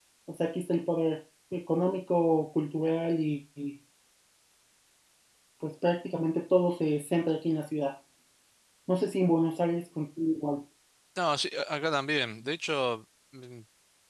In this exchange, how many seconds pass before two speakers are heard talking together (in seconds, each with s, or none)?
none